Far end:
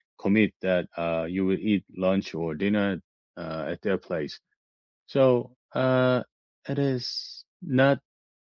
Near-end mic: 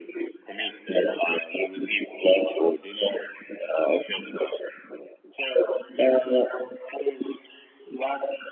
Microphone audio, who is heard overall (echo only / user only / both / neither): echo only